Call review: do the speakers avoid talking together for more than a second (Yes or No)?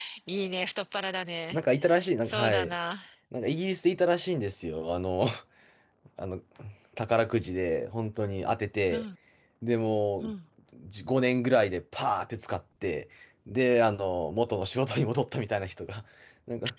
Yes